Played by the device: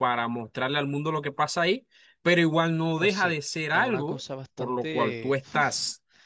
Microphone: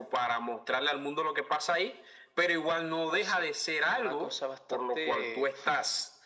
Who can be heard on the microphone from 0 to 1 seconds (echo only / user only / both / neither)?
echo only